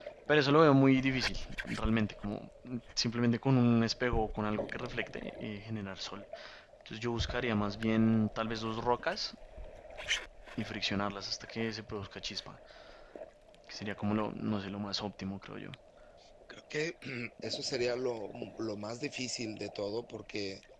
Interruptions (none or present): none